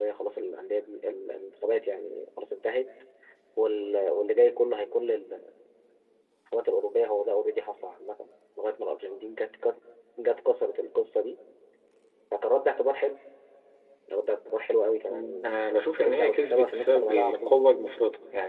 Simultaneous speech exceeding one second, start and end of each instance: 15.1-17.5

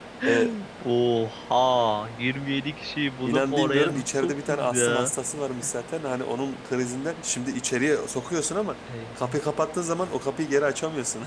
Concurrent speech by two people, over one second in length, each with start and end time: 3.2-5.1

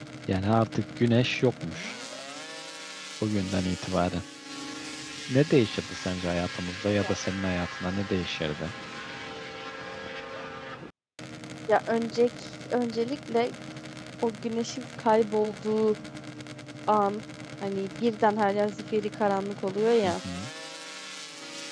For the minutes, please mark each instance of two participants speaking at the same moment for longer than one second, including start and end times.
none

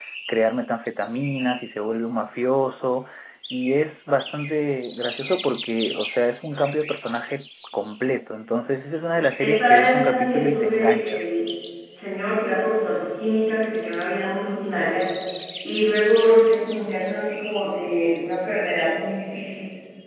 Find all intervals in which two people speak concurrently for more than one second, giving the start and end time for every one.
9.4-11.2

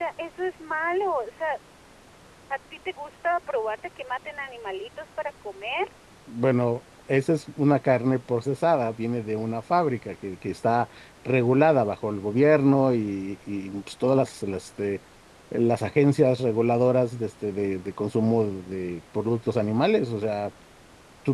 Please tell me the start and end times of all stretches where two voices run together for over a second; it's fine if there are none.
none

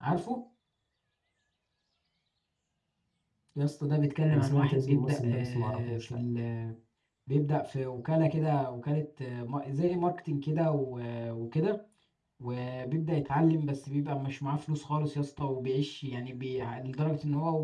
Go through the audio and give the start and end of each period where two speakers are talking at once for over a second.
4.3-6.2

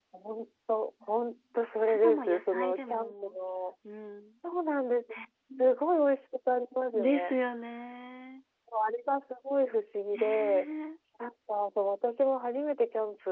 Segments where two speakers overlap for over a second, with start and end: 1.9-3.3

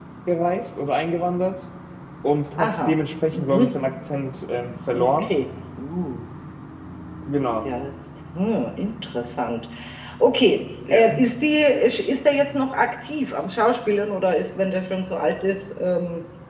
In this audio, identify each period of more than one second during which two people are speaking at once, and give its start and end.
none

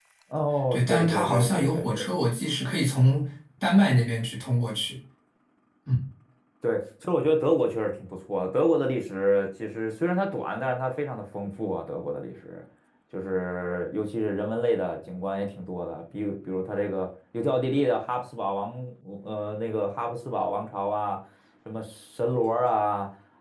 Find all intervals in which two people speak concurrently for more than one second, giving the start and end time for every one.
0.7-2.1

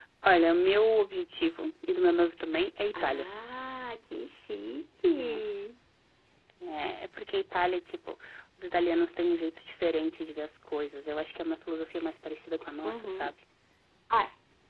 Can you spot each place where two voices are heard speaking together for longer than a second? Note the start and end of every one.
none

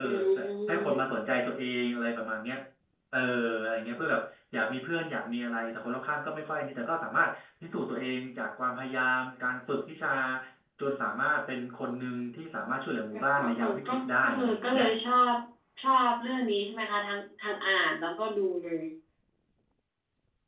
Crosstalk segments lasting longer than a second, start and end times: 13.4-14.8

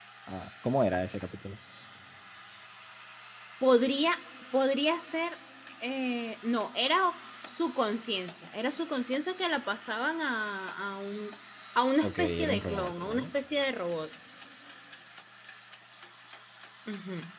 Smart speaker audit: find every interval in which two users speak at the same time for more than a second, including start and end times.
12.0-13.3

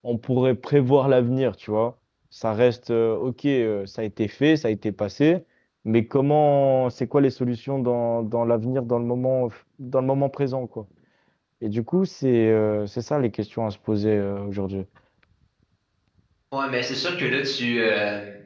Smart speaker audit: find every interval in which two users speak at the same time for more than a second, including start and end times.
none

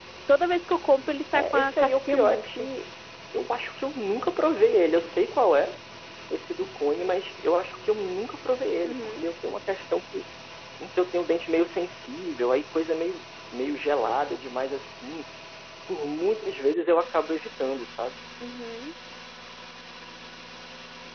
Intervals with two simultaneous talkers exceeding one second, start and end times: 1.3-2.7

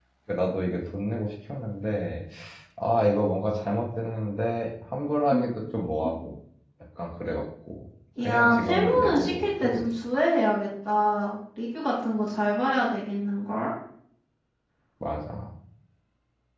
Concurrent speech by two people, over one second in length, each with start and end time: 8.2-9.8

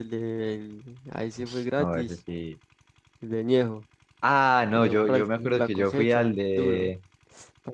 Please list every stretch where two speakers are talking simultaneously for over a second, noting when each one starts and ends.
4.8-6.9

